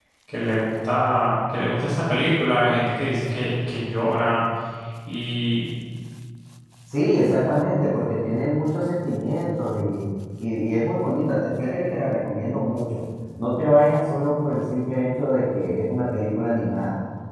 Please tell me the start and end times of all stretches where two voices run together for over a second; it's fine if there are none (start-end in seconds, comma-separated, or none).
none